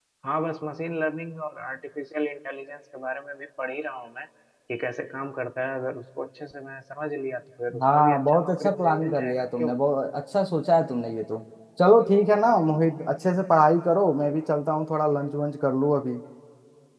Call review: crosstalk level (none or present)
present